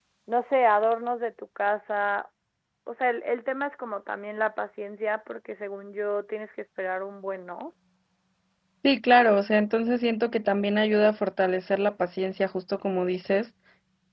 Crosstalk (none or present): none